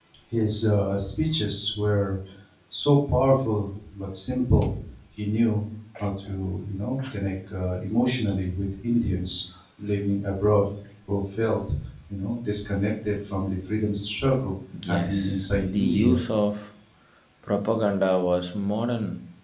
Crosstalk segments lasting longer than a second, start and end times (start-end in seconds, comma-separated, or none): 14.9-16.2